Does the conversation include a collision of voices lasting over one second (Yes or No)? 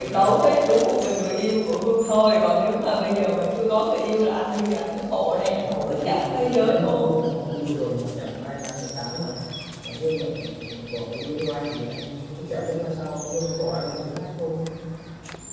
Yes